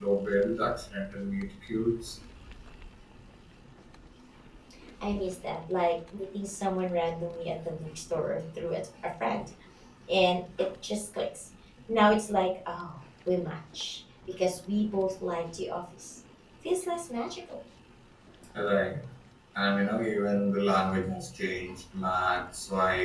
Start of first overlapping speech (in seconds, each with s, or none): none